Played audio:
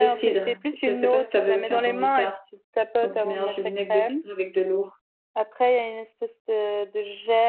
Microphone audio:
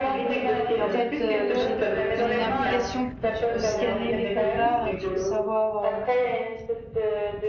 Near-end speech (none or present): present